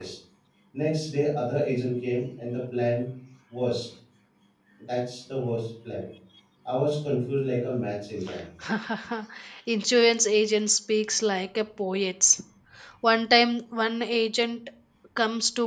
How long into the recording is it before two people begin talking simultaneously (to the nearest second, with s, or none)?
none